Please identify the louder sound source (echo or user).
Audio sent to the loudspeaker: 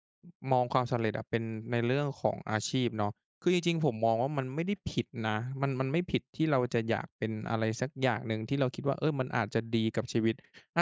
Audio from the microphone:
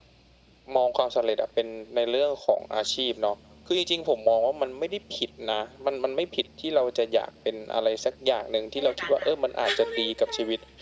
echo